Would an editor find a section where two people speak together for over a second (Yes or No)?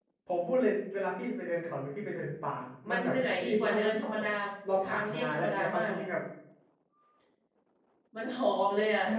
Yes